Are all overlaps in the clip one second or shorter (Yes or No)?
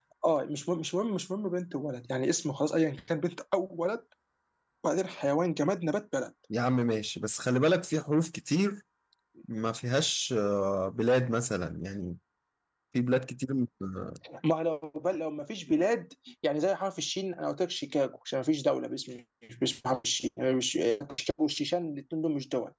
Yes